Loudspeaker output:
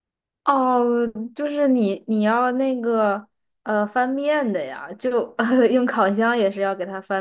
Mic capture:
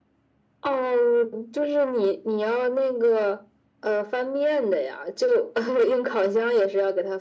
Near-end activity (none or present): none